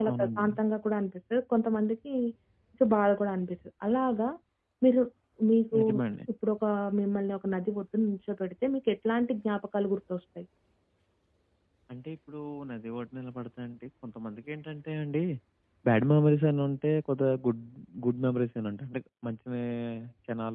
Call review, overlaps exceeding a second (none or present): none